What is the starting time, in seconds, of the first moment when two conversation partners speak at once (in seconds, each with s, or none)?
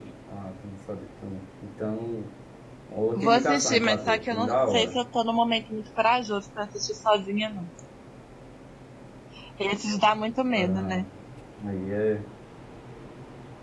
3.2 s